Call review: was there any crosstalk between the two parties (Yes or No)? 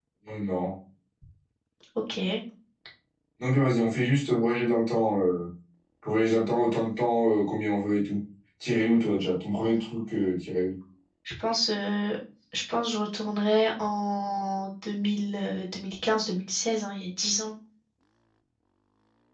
No